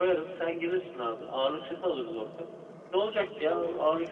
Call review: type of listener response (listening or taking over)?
listening